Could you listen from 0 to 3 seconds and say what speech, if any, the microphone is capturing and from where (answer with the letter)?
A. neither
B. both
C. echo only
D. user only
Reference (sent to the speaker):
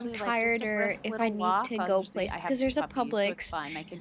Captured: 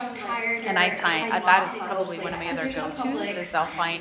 B